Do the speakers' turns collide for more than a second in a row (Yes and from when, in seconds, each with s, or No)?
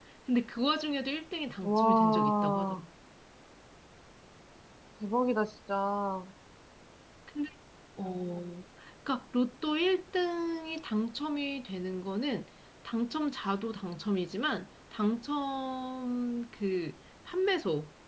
Yes, from 1.6 s